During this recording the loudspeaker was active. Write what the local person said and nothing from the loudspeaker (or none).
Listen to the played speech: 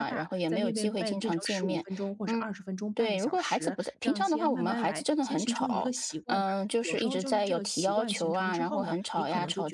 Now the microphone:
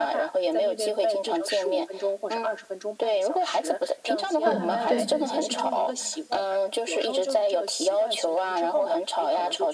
嗯，对，